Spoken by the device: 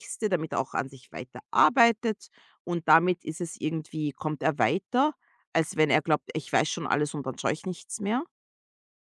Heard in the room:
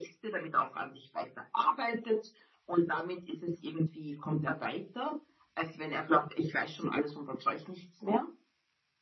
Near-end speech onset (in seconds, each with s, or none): none